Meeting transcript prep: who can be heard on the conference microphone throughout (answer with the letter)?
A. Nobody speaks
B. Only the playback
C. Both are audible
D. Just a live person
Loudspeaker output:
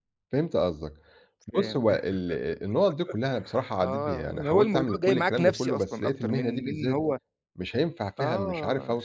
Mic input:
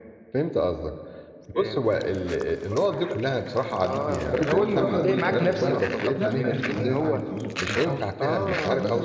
C